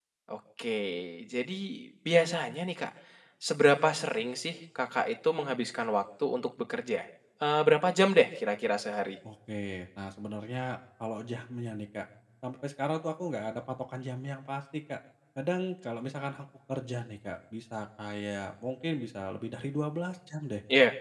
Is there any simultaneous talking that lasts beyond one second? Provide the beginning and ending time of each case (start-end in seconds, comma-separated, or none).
none